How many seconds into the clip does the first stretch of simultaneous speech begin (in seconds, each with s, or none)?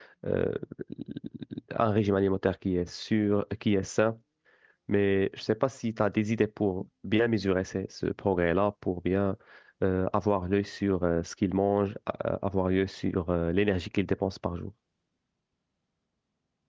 none